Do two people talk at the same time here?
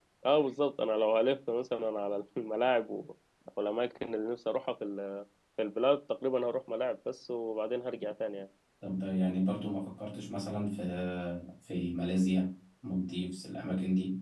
No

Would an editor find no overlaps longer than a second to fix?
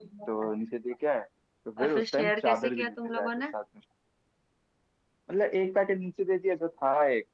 No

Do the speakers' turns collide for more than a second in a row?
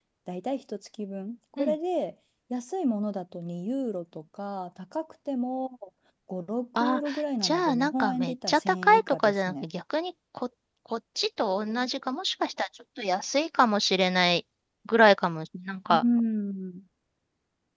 Yes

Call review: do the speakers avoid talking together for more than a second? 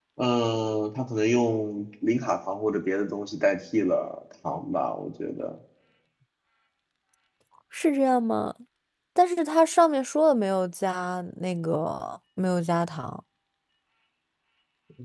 Yes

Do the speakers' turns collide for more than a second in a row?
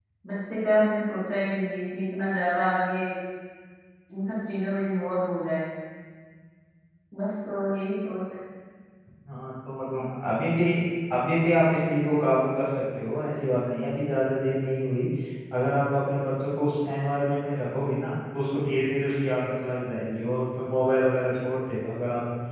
No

